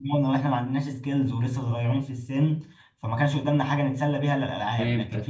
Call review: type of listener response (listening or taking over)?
listening